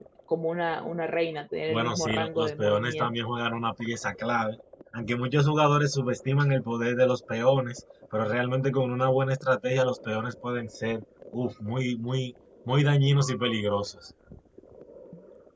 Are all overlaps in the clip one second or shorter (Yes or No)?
No